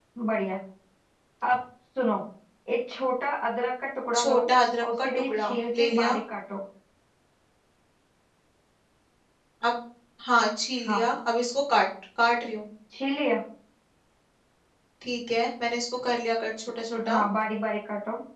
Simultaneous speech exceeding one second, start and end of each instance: 4.8-6.2

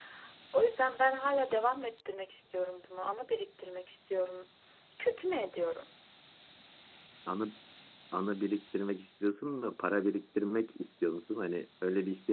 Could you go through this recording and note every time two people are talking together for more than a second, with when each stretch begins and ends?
none

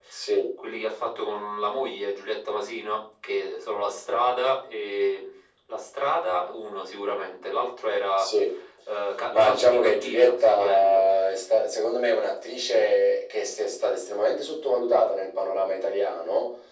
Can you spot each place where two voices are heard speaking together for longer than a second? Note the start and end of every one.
9.3-11.1

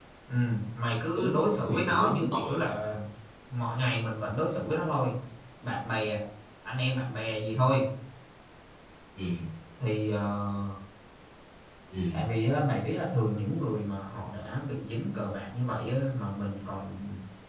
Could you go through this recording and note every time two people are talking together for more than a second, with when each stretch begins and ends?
1.1-2.6

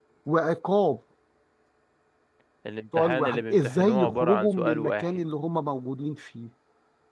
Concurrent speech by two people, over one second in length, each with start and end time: 3.0-5.2

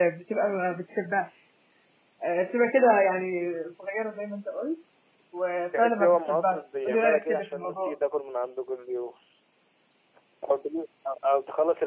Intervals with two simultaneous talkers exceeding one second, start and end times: 5.8-7.9

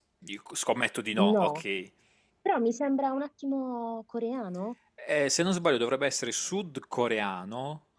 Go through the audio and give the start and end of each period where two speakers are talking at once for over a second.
none

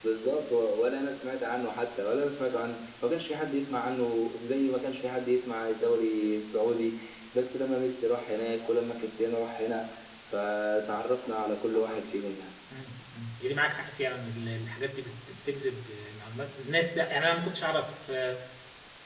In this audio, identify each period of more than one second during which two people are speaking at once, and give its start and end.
none

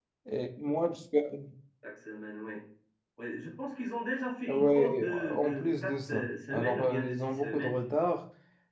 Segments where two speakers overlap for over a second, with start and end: 4.5-7.9

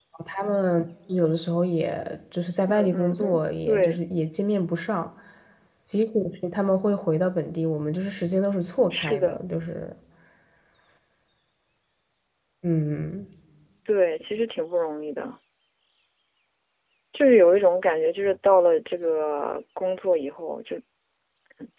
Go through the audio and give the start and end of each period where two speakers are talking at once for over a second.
2.7-4.0

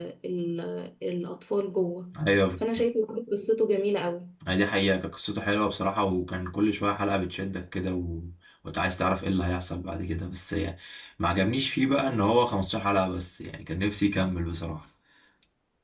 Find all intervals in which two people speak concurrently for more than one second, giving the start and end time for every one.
none

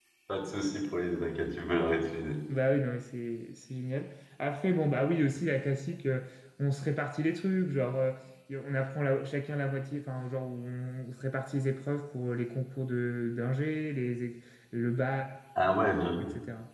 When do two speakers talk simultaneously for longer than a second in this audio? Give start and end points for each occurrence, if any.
none

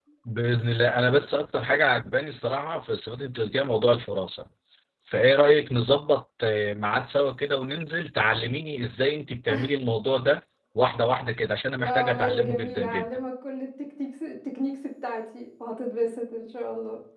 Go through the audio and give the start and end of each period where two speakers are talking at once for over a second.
11.8-13.0

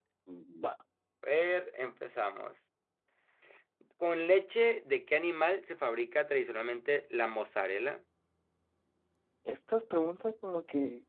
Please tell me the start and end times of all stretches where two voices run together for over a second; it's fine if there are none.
none

